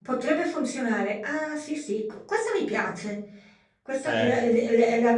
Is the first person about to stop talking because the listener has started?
No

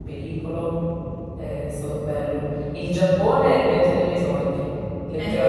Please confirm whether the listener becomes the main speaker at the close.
Yes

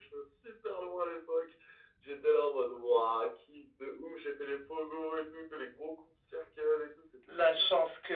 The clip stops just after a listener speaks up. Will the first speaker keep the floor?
No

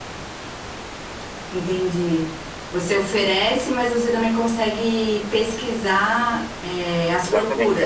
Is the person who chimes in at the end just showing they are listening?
No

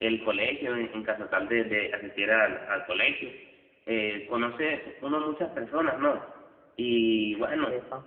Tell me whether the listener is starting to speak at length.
No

